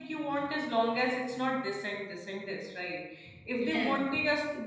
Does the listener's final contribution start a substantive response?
No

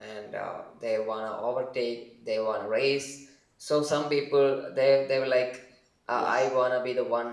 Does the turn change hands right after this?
No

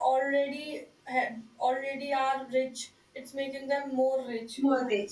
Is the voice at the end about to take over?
Yes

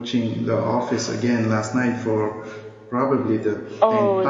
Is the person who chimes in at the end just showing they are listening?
No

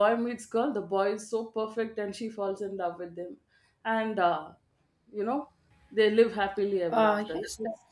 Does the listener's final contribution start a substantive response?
Yes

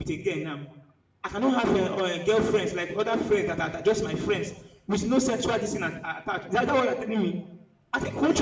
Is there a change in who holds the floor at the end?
Yes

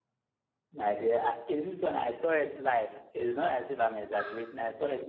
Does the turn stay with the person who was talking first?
Yes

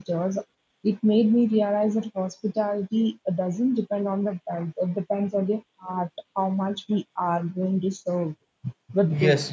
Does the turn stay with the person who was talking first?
No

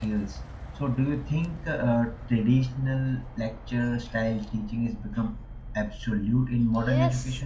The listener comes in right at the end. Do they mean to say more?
Yes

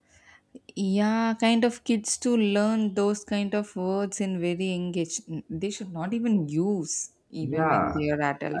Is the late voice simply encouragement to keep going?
No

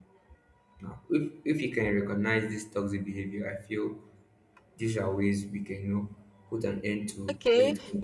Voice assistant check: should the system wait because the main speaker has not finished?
No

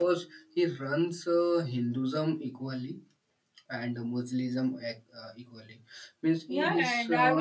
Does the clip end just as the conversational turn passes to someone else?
Yes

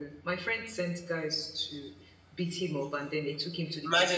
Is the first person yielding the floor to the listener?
Yes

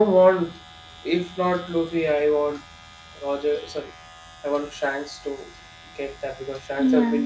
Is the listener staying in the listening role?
Yes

